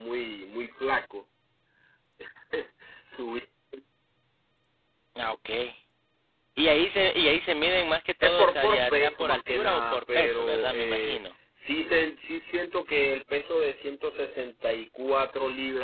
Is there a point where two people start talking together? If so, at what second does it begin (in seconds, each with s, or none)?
8.2 s